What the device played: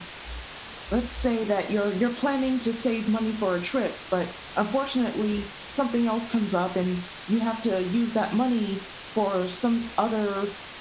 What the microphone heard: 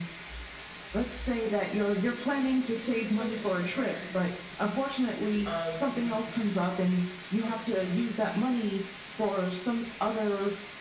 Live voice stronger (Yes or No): No